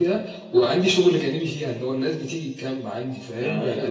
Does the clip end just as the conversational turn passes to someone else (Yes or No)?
No